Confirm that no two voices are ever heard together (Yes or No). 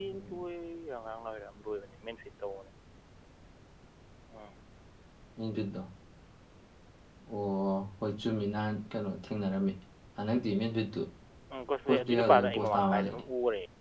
No